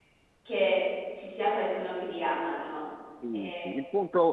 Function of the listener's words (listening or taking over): taking over